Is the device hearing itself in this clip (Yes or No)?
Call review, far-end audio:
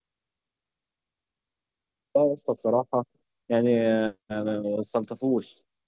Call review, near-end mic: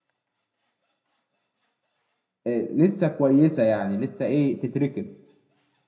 No